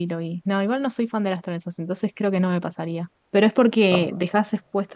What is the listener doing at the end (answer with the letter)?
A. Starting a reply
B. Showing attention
B